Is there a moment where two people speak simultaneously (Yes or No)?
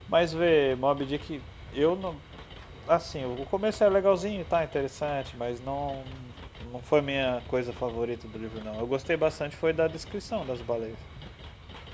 No